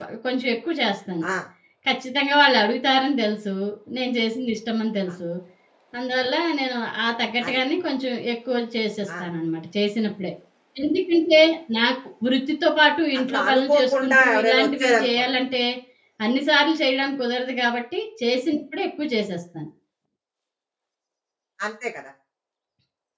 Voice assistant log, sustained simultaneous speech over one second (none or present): present